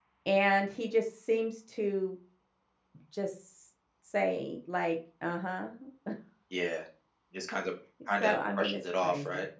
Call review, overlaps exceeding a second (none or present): present